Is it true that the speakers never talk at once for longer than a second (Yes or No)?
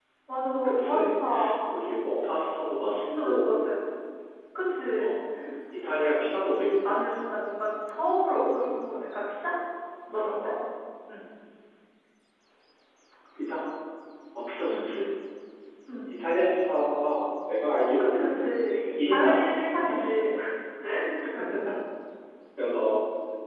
No